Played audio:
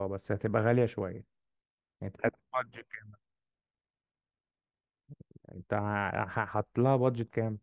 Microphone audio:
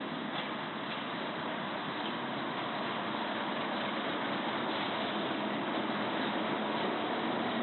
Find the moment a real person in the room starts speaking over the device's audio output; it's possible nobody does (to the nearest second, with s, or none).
none